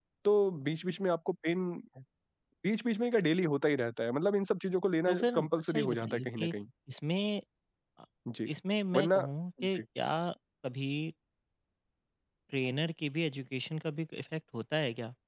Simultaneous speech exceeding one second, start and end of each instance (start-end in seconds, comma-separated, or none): 5.1-6.5